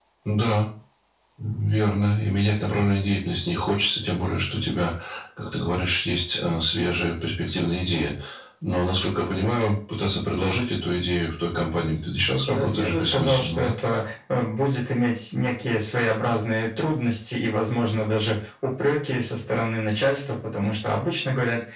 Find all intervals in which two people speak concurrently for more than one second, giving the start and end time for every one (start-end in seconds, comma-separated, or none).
12.5-13.7